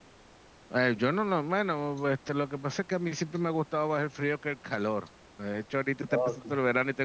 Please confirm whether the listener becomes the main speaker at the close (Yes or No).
No